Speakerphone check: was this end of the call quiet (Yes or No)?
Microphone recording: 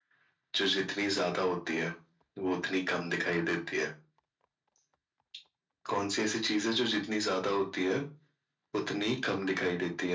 Yes